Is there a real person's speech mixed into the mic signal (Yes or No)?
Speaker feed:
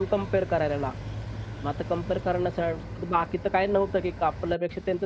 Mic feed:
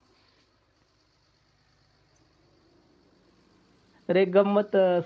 Yes